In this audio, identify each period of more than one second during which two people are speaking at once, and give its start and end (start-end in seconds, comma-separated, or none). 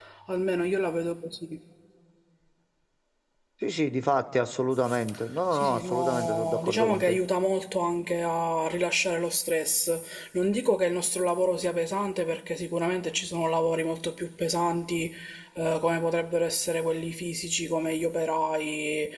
5.5-7.2